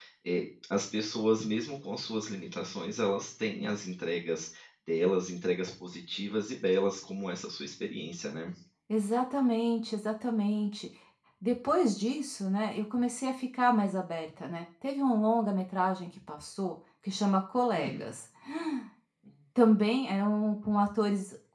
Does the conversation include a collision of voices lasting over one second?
No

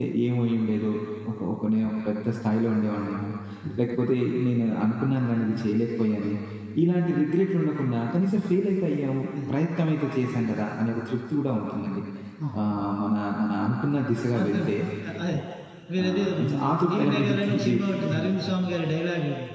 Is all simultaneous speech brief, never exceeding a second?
No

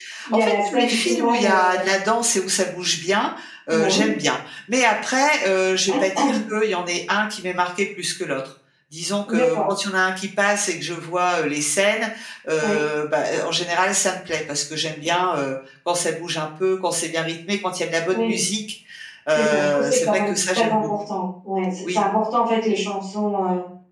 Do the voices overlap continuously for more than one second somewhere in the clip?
Yes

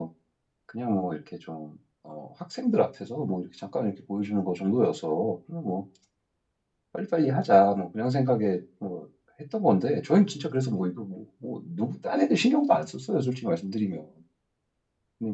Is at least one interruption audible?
No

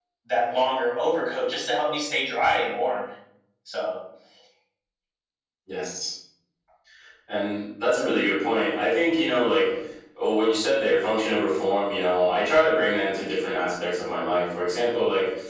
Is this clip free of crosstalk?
Yes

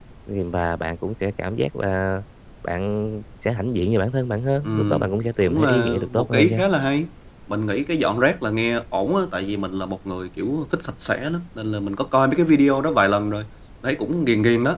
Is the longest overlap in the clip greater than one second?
Yes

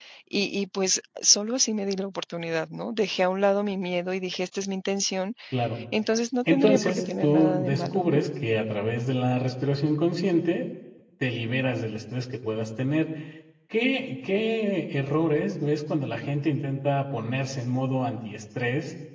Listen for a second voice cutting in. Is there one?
Yes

